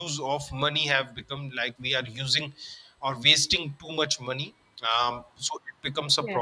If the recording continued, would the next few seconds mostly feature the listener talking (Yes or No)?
No